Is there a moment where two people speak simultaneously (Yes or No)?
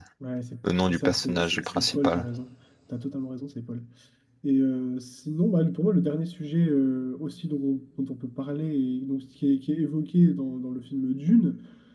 Yes